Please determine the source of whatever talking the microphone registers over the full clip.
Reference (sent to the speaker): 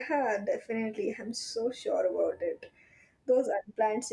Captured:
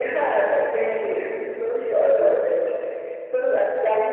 echo only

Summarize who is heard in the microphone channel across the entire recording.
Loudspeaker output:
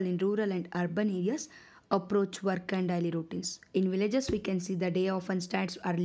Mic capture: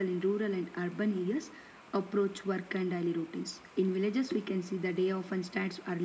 echo only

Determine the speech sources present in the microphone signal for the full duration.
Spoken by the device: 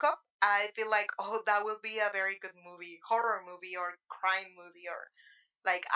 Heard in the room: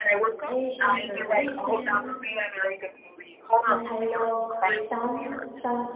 both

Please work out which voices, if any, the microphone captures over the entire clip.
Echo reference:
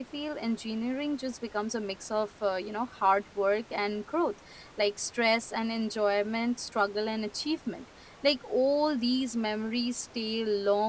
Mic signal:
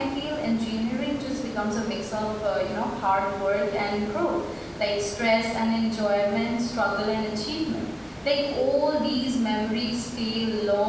echo only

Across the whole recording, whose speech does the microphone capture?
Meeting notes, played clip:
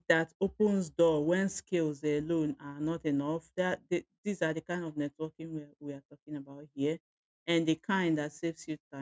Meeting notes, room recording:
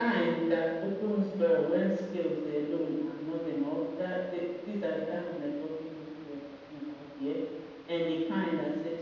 echo only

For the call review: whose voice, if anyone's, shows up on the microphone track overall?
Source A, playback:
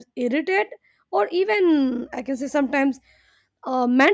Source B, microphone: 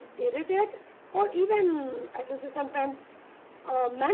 echo only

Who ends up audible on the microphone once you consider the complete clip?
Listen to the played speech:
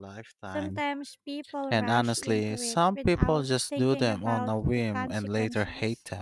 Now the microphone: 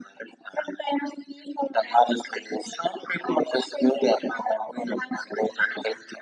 echo only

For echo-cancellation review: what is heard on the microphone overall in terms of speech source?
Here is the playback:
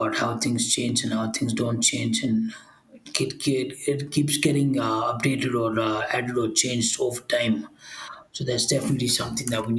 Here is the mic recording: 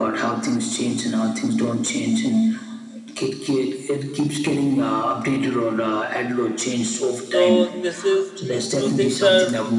both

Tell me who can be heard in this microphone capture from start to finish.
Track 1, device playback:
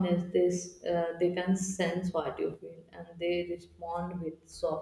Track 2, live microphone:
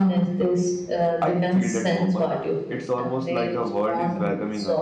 both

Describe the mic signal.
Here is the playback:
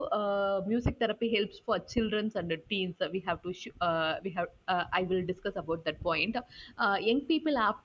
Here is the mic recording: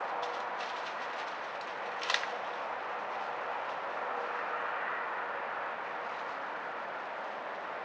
neither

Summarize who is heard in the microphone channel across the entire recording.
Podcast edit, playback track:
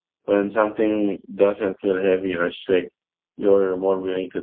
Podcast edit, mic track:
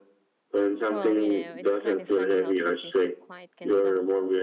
both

